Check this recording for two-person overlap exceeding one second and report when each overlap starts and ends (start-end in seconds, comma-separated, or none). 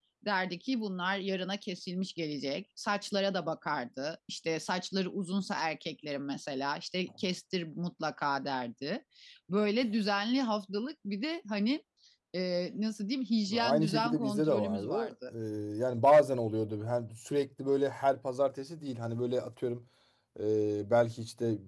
13.5-15.1